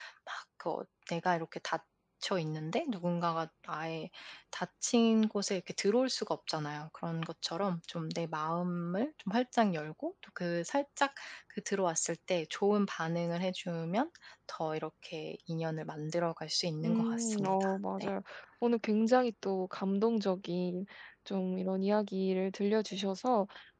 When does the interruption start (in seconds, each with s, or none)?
16.8 s